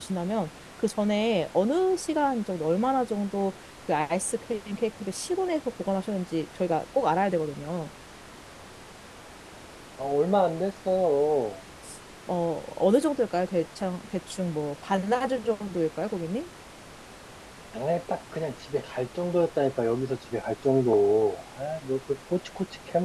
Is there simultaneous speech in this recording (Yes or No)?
No